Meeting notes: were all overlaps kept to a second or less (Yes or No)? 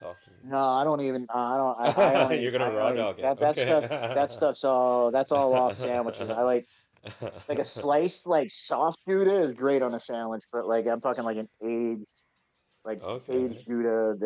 No